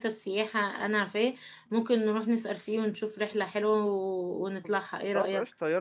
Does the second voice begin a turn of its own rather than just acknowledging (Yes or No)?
Yes